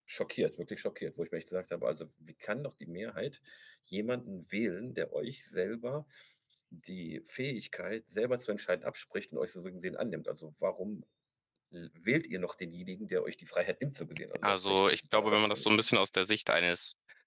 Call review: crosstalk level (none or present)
present